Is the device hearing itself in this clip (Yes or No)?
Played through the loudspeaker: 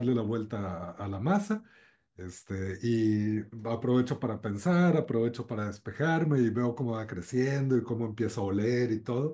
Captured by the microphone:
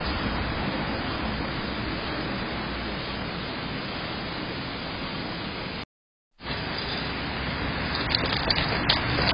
No